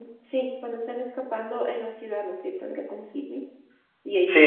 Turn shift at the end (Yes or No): Yes